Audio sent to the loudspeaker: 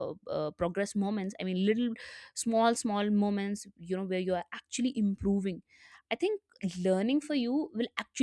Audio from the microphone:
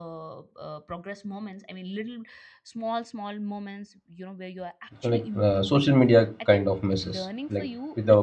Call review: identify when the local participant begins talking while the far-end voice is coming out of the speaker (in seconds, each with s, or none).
5.0 s